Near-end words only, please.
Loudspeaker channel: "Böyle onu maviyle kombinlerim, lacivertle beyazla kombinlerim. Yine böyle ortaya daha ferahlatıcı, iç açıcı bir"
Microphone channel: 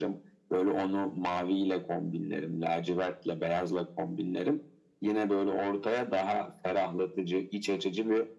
none

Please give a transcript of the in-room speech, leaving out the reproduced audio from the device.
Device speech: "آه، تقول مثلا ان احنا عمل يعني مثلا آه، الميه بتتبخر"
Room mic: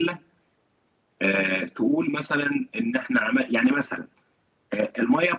none

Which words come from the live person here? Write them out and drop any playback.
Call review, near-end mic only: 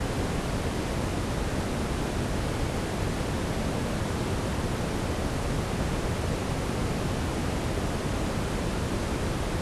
none

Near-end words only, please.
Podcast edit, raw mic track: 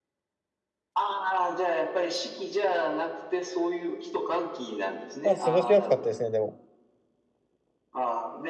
まあ過ごしやすかったですね、でも。

